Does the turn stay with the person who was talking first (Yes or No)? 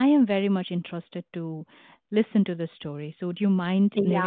No